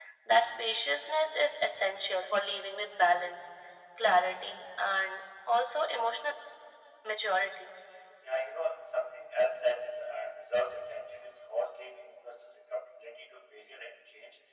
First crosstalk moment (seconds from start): none

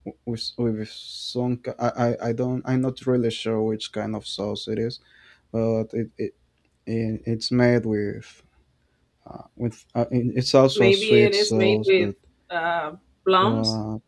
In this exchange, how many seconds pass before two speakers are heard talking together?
10.8 s

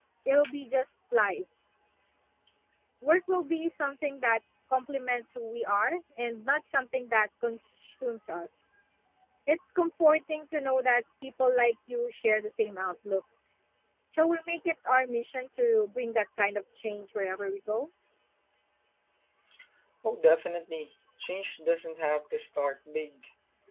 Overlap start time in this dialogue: none

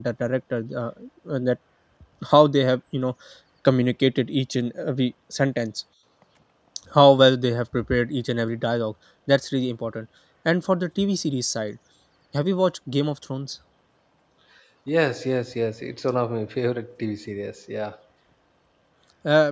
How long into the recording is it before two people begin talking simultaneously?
none

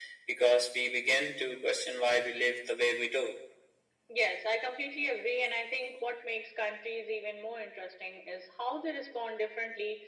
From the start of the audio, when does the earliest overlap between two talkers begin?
none

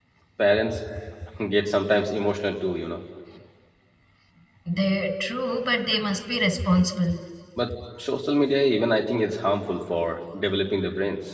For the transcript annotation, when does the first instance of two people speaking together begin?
none

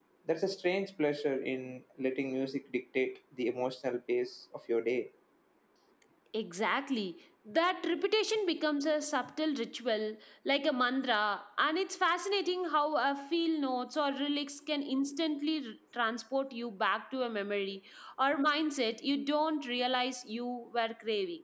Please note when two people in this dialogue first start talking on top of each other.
none

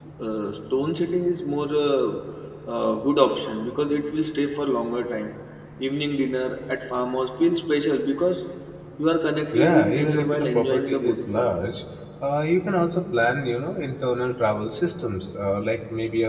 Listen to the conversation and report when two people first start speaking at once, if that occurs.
9.6 s

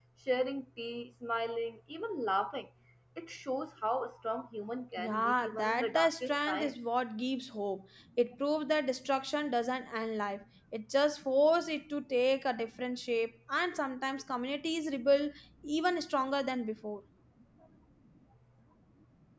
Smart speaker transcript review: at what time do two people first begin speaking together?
5.0 s

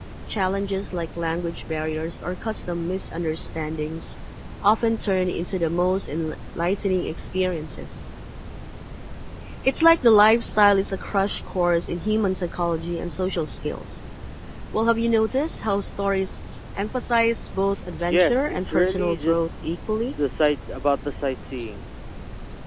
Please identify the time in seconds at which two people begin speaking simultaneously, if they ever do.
18.1 s

